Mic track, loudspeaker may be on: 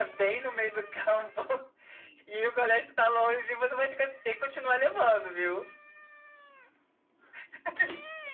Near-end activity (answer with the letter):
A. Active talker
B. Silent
B